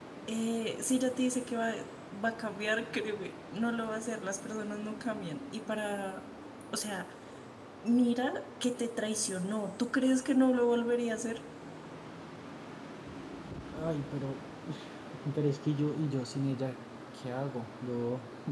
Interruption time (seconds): none

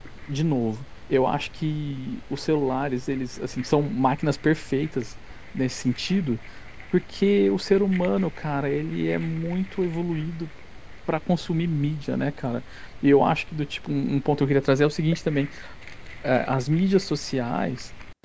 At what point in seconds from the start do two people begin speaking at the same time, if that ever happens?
none

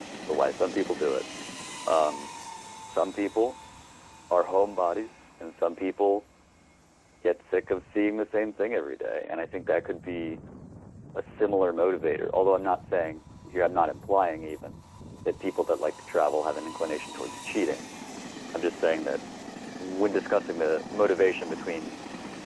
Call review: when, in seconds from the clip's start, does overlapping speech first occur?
none

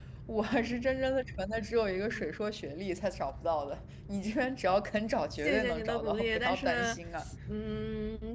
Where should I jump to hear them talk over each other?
5.4 s

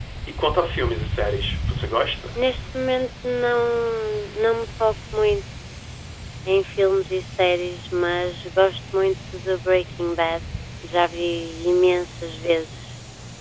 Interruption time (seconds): none

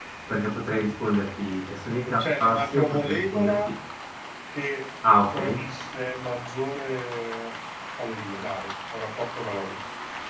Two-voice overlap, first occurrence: 2.2 s

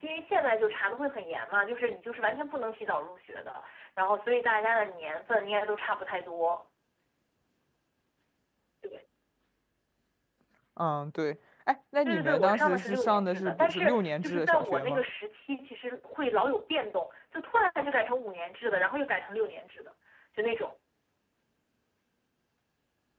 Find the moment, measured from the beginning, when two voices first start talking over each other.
12.1 s

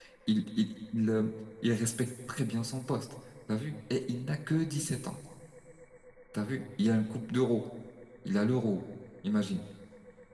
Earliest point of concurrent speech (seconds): none

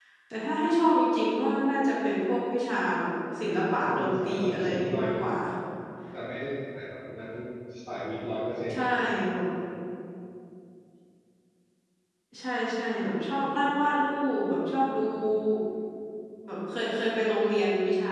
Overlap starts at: 3.6 s

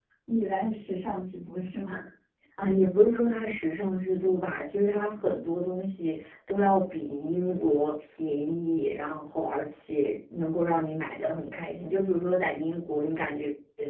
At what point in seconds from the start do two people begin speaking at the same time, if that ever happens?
none

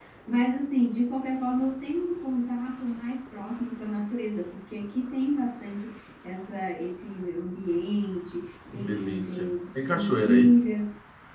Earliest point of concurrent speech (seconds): 8.7 s

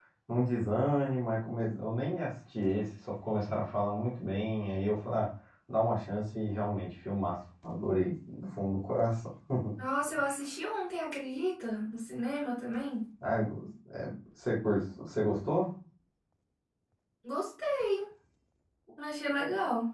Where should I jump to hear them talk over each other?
none

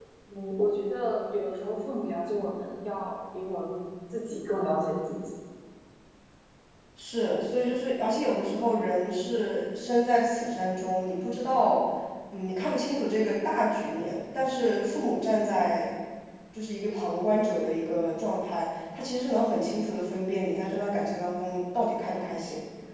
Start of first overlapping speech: none

